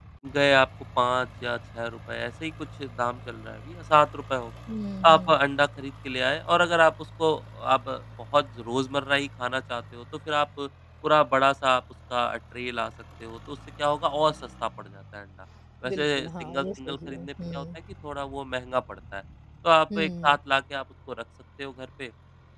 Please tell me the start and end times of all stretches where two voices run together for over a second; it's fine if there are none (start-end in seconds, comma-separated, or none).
15.8-17.6